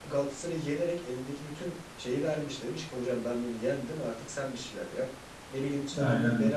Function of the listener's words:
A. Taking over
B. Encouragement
B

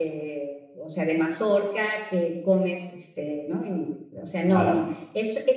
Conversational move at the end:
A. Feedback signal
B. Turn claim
A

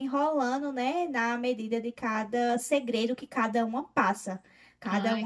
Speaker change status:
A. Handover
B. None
B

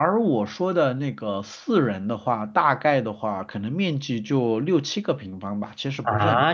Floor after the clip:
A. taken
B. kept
A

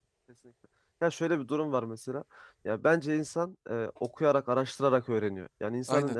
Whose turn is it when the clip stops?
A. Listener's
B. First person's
B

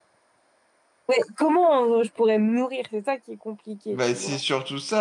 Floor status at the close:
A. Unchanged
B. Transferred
B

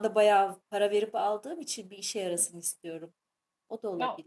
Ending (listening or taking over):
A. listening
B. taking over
B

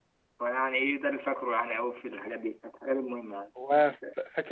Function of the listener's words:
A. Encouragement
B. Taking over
B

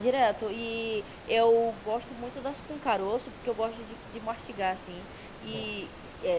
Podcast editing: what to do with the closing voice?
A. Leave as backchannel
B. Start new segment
A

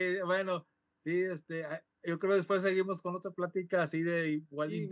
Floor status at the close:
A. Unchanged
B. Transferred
B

